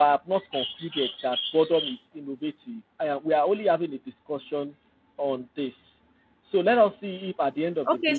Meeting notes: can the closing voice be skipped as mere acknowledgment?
No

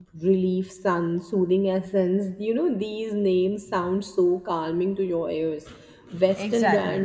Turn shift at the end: No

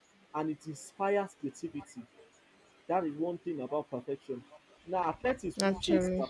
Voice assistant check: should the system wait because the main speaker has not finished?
Yes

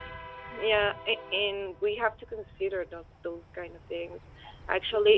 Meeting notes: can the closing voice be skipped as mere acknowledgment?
Yes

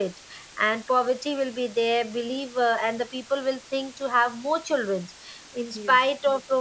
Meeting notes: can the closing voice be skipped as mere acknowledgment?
Yes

